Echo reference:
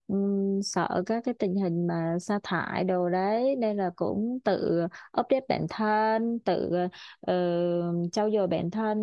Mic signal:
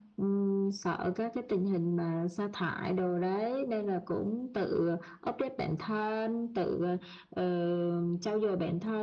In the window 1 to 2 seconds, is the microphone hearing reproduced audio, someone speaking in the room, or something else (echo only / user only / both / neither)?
echo only